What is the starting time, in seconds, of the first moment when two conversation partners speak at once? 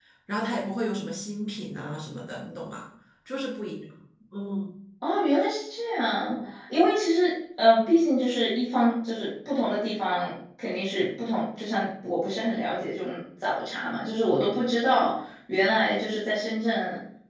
none

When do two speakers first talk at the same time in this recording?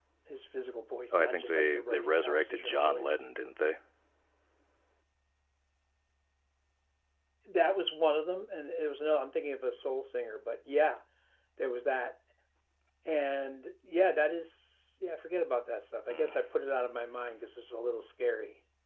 1.1 s

